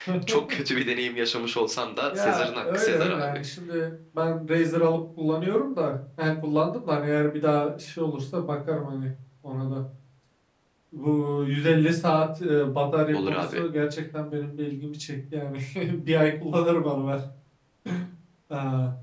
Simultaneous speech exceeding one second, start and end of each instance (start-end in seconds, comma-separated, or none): 2.1-3.4